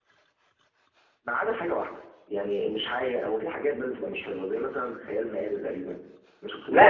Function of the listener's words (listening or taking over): taking over